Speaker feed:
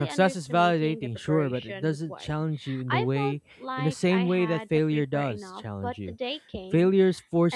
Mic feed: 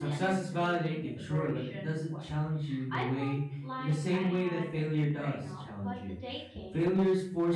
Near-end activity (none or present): none